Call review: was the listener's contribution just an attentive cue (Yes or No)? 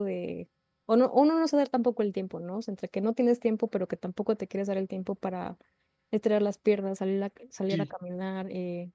Yes